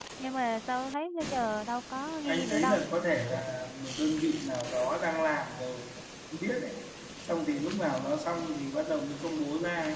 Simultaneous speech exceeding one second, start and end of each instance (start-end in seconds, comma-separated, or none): none